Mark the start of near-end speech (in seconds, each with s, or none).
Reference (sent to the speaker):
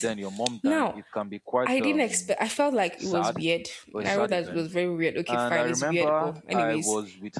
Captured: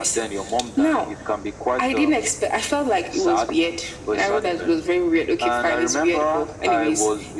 none